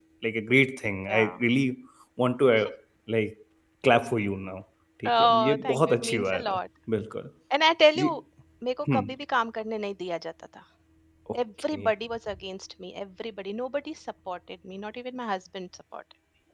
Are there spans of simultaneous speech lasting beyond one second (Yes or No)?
Yes